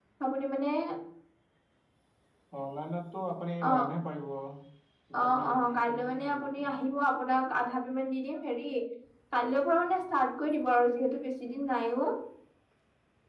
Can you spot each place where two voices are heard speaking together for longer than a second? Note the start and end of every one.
5.2-6.7

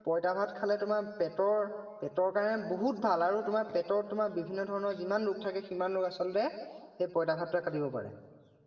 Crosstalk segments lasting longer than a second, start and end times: none

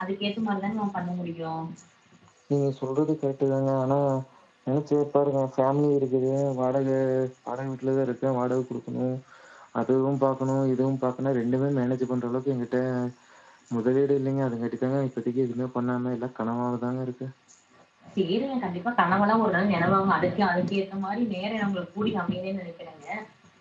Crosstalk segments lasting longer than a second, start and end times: none

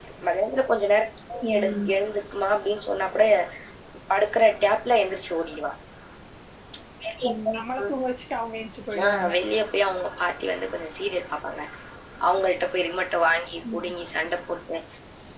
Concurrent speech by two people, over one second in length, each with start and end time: none

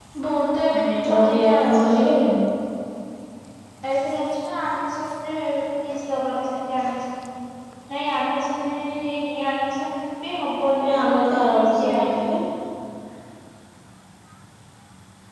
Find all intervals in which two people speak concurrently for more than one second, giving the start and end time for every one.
0.8-2.1, 10.8-12.3

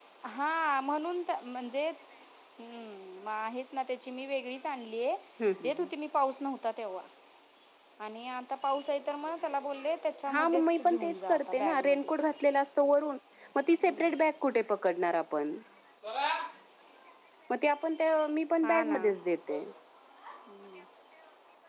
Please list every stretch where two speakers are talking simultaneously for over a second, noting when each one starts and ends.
10.3-12.1

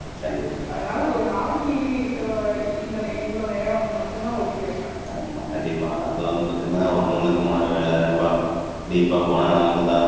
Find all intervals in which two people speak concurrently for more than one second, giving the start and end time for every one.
none

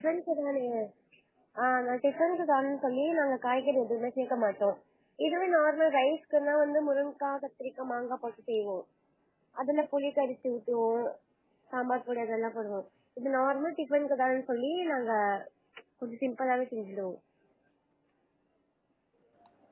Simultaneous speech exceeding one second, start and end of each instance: none

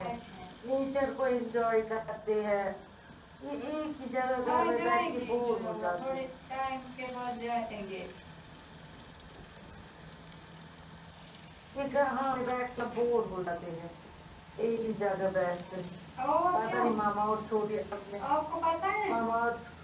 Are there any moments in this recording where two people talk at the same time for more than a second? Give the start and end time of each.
4.4-6.2

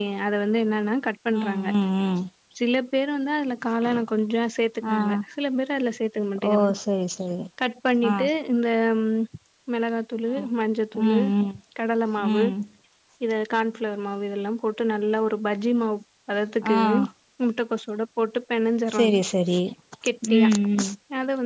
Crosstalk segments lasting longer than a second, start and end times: none

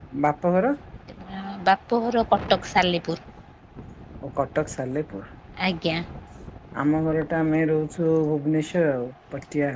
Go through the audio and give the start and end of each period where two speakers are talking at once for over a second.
none

